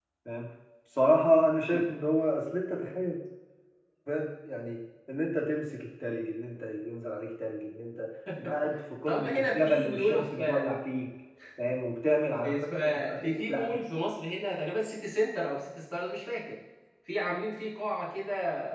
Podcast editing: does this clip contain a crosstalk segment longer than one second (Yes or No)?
Yes